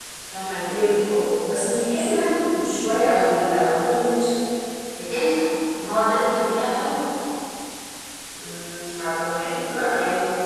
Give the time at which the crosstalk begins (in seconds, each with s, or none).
none